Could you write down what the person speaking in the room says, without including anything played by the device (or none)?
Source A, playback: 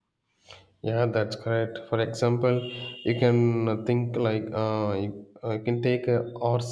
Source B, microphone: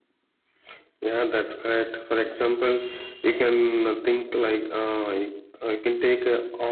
none